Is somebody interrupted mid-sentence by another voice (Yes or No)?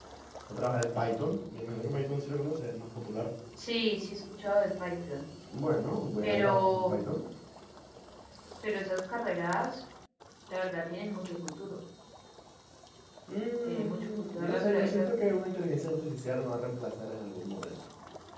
Yes